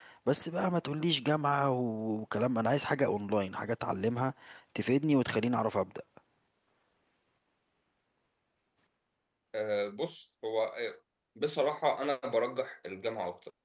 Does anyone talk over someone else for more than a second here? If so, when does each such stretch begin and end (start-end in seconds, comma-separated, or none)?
none